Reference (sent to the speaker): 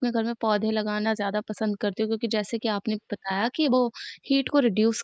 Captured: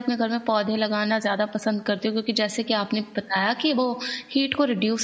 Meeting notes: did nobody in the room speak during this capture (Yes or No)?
Yes